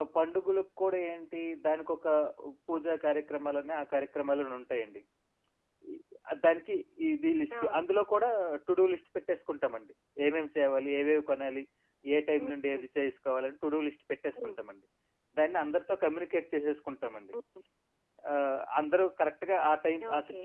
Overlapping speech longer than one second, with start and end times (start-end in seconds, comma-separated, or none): none